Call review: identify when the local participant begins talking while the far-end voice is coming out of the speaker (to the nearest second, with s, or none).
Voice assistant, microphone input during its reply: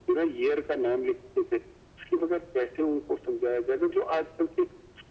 none